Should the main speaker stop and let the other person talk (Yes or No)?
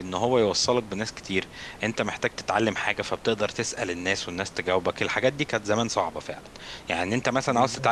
No